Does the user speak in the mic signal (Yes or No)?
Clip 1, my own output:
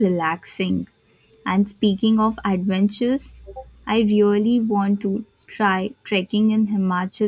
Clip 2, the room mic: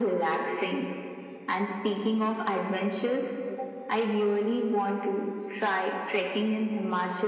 No